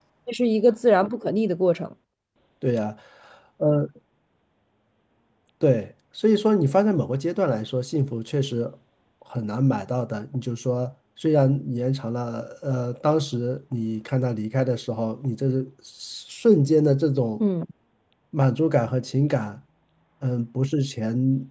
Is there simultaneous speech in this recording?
No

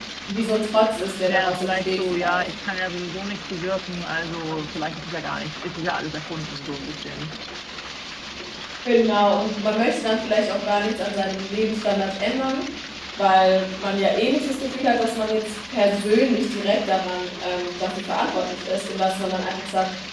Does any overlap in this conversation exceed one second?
Yes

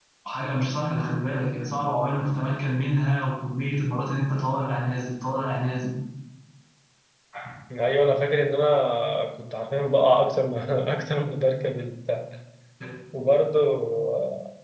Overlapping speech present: No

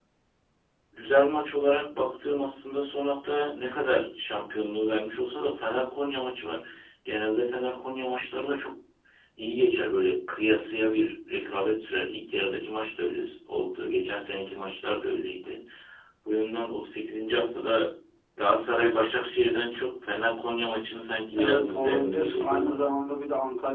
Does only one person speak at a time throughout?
No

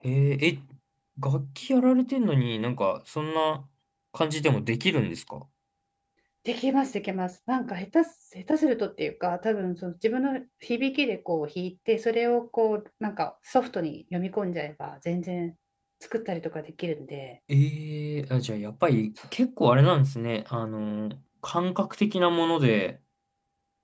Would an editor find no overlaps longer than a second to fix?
Yes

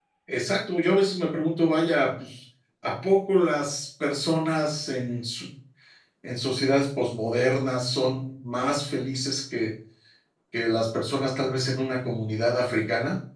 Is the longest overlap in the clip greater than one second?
No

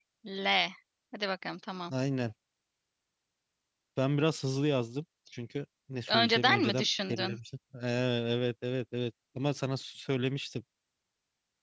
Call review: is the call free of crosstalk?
No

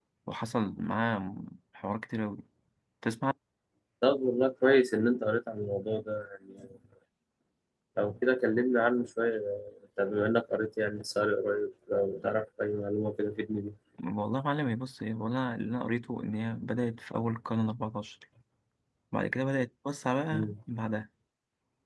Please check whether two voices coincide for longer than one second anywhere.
No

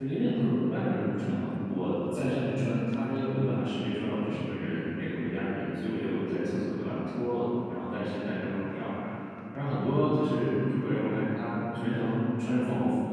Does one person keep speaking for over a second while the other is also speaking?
No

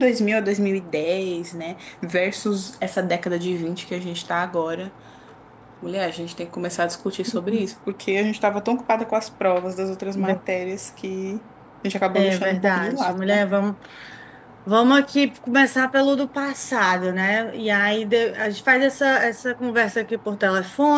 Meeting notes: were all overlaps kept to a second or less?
No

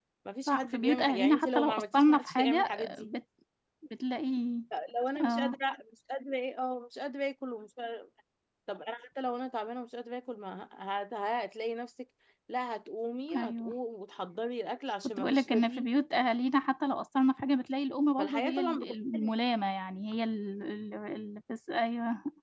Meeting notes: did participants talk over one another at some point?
Yes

